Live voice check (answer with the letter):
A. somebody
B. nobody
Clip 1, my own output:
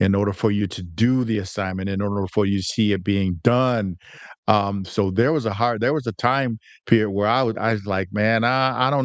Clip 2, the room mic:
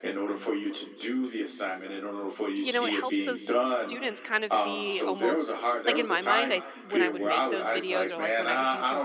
A